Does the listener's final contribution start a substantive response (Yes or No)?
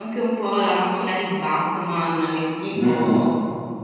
No